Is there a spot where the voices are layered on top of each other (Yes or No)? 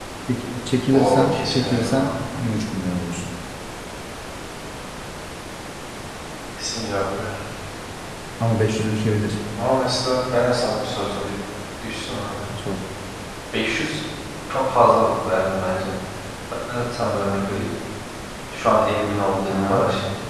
Yes